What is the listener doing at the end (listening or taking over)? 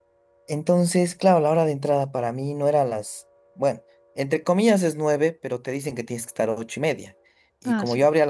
listening